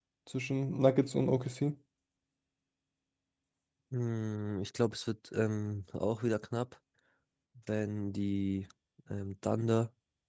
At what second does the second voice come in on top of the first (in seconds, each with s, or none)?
none